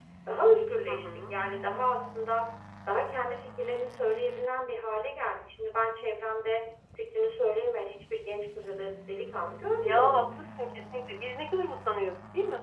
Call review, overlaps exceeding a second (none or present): none